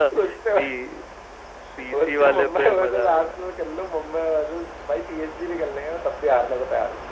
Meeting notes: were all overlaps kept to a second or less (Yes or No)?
No